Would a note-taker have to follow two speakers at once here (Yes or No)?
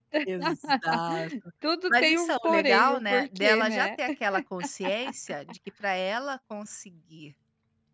Yes